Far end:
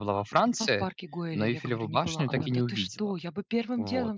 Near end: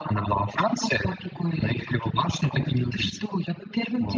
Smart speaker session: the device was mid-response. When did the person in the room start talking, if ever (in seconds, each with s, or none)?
none